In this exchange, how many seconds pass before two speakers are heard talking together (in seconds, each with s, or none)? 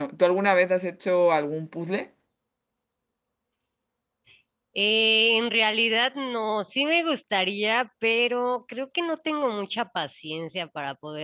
none